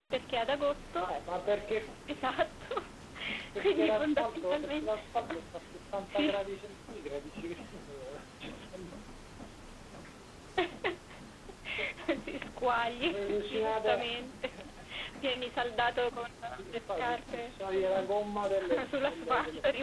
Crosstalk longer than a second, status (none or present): present